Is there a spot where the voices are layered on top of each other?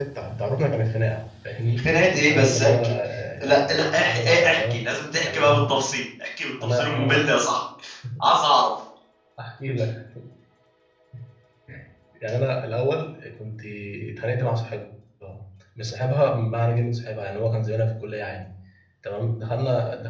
Yes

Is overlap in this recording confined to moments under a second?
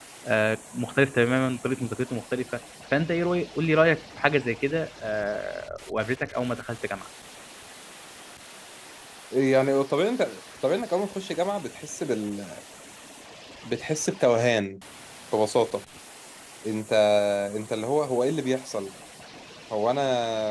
Yes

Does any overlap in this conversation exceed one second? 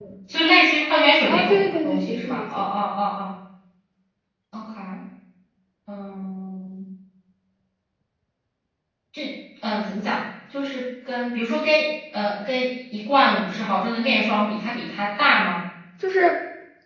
Yes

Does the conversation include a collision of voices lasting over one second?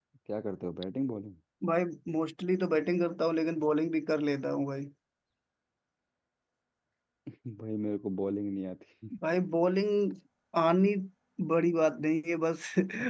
No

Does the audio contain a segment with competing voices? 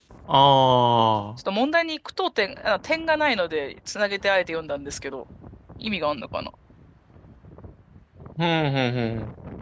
No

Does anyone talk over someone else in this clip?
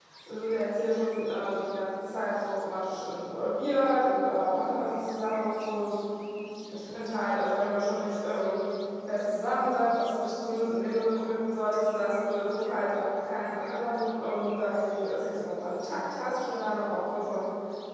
No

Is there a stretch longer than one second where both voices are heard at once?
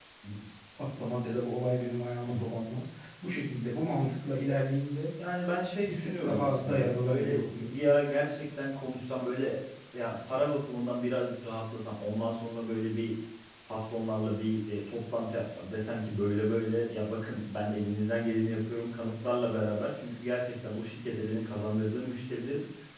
Yes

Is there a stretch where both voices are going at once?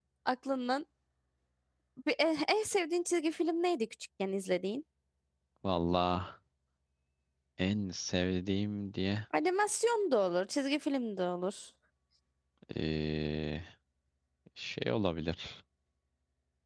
No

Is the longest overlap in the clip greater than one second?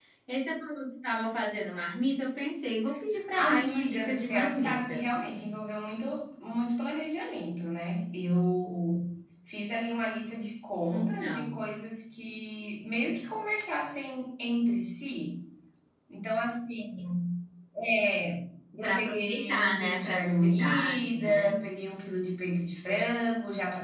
Yes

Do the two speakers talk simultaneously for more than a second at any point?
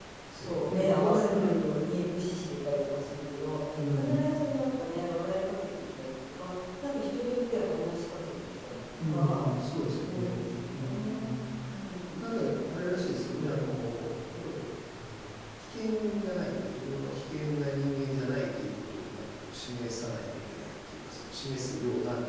Yes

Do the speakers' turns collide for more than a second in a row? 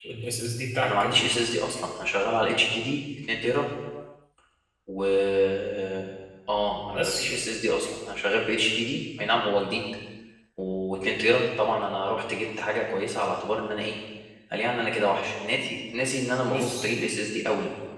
No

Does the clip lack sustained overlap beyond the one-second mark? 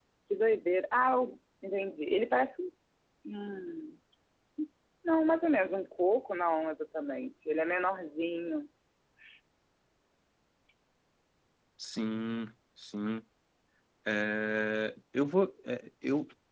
Yes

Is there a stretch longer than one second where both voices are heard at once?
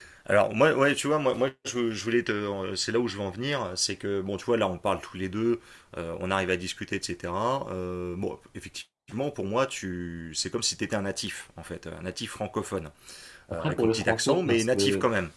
Yes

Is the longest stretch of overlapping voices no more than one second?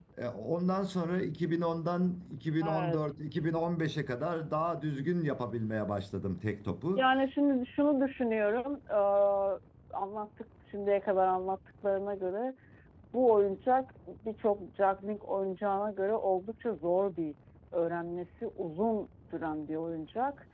Yes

